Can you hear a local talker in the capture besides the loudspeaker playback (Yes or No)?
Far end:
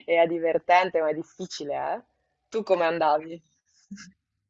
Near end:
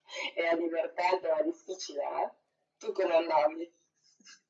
No